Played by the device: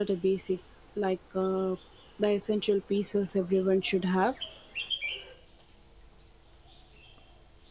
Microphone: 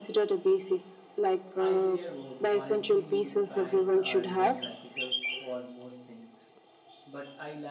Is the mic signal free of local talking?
No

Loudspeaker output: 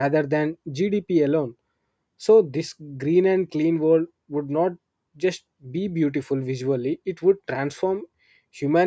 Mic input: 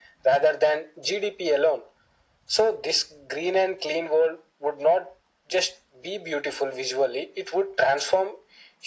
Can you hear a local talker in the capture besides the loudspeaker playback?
No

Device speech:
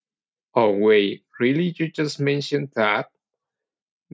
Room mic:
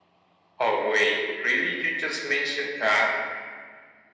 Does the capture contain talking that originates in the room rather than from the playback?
No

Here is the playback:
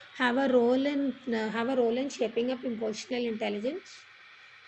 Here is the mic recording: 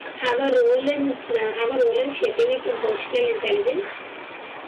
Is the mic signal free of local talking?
Yes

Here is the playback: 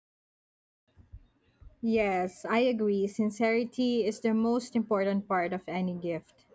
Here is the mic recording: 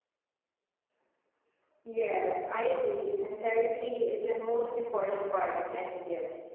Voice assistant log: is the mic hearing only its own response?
Yes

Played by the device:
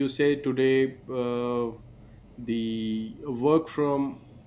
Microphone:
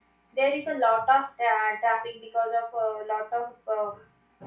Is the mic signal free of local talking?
No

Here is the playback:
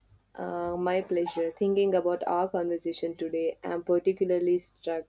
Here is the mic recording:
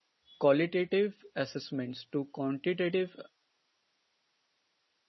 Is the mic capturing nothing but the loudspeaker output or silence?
No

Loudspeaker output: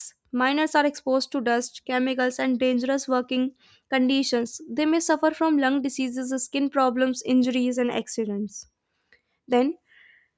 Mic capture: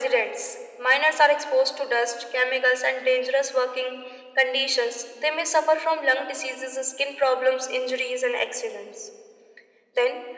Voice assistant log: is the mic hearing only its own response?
Yes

